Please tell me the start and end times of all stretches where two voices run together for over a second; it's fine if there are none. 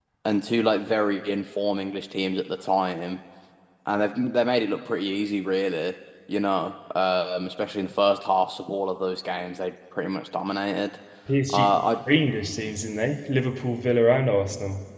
none

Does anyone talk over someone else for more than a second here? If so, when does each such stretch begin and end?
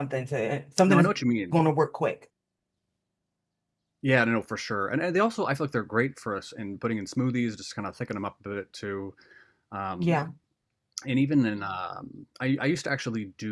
none

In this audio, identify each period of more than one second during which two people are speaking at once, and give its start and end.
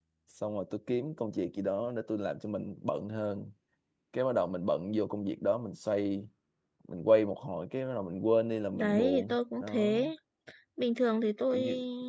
8.7-9.9

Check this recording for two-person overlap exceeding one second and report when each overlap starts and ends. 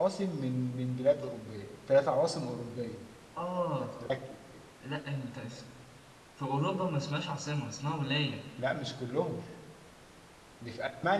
none

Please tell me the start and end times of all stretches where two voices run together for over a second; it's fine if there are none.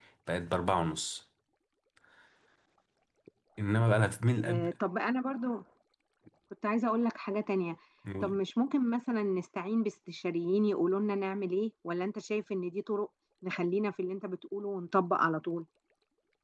none

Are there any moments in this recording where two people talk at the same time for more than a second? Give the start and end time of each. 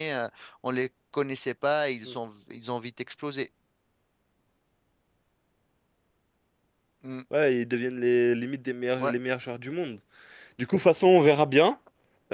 none

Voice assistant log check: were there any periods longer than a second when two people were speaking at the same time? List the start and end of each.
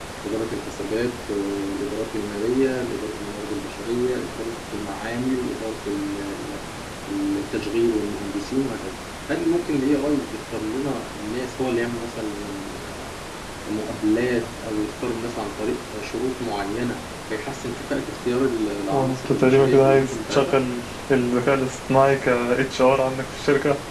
18.9-20.5

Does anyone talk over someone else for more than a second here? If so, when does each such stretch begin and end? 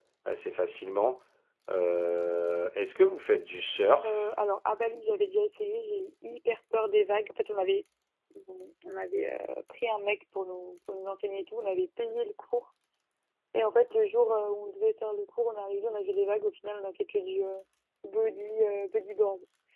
none

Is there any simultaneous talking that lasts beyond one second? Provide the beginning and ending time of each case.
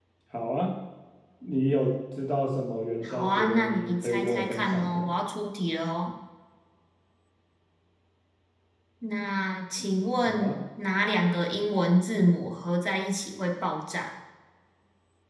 3.0-5.1

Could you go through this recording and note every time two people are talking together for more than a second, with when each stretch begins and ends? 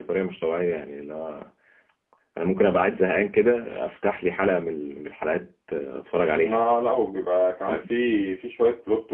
none

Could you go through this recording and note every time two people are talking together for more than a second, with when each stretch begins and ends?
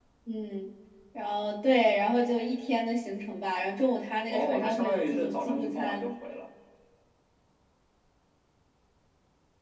4.3-6.1

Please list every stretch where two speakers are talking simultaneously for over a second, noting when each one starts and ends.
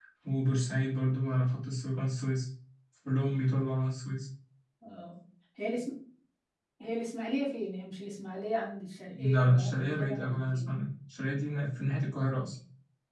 9.1-10.7

